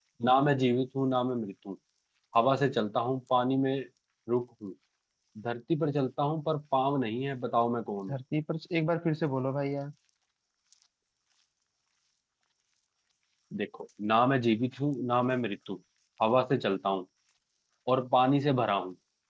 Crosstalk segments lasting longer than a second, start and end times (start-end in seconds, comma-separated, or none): none